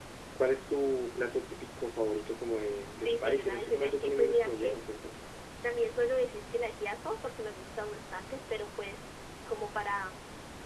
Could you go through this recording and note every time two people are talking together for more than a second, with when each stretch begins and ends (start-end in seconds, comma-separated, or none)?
3.0-4.8